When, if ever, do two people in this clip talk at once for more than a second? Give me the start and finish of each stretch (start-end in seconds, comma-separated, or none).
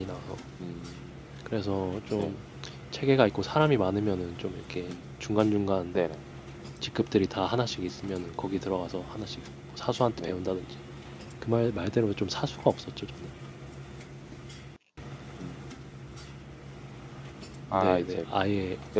none